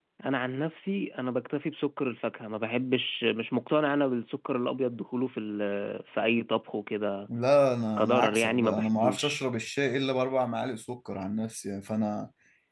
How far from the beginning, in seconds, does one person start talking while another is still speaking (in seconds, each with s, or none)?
8.0 s